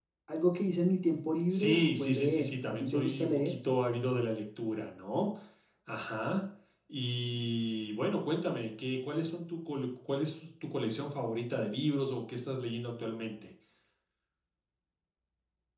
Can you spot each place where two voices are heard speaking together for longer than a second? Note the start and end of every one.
1.5-3.5

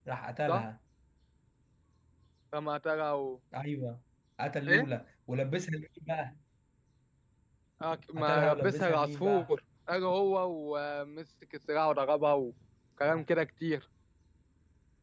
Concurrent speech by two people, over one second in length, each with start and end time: 8.2-9.5

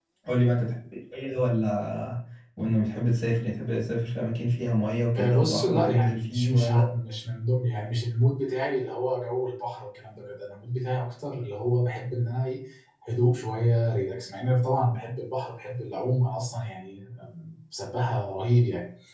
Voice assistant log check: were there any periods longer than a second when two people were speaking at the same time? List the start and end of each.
5.2-6.9

